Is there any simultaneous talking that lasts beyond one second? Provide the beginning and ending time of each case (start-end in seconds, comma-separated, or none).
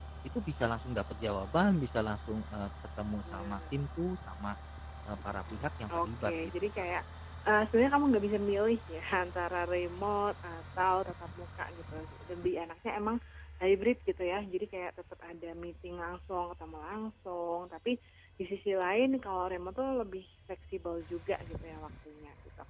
5.3-6.8